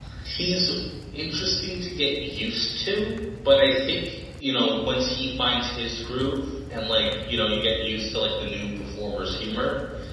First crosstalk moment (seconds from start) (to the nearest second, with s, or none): none